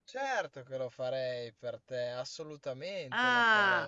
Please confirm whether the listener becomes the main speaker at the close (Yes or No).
Yes